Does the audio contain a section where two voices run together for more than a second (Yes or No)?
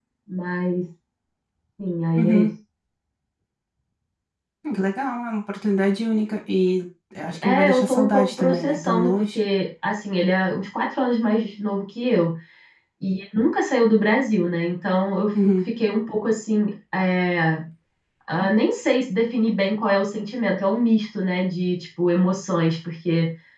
Yes